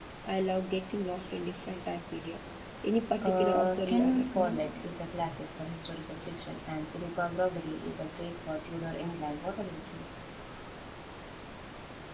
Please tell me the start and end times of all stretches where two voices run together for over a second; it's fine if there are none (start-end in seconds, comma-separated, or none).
3.3-4.6